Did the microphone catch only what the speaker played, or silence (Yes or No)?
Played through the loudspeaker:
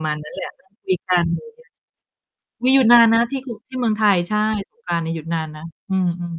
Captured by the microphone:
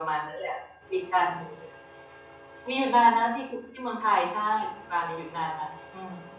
Yes